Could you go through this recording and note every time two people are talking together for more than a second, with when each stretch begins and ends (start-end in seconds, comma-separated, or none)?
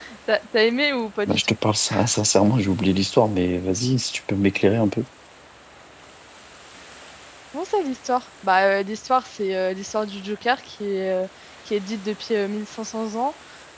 none